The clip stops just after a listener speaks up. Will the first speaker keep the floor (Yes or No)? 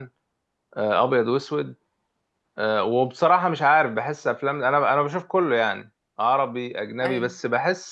Yes